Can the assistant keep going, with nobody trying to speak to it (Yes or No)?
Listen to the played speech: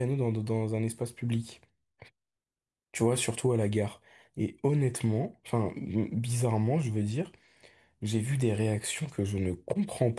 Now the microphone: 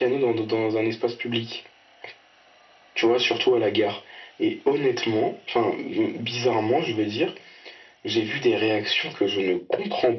Yes